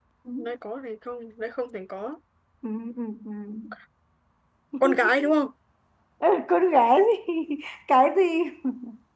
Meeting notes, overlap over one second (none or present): none